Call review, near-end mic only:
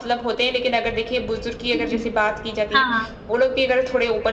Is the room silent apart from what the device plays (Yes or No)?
No